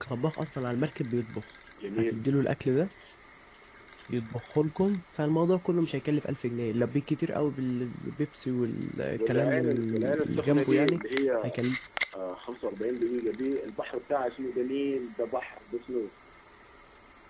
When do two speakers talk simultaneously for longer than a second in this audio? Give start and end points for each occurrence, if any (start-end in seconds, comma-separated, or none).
9.1-11.0